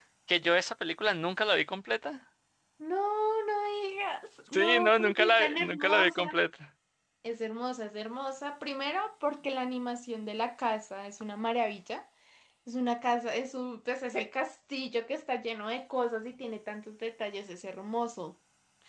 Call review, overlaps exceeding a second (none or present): present